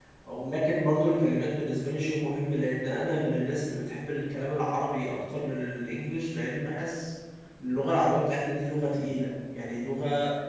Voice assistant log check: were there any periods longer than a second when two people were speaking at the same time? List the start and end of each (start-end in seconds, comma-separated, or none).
none